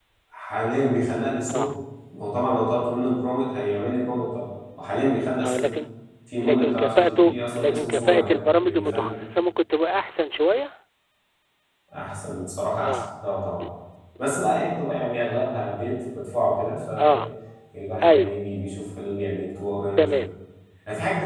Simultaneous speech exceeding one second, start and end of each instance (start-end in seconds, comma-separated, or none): 6.4-9.1